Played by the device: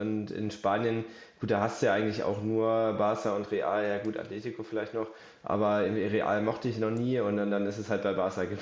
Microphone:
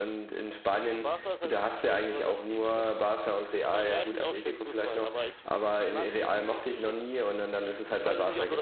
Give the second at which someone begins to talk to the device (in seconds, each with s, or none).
0.7 s